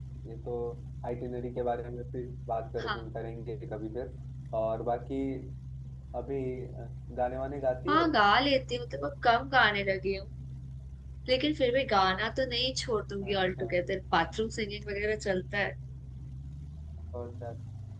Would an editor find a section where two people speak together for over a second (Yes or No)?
No